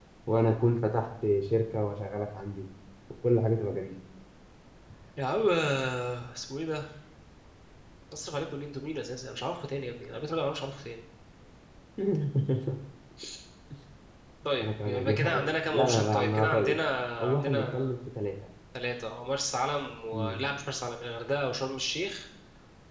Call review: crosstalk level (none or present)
present